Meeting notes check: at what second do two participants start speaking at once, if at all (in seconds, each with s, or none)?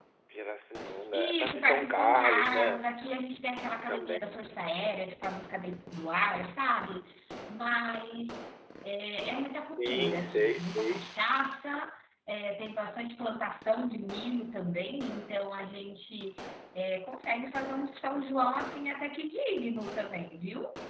1.1 s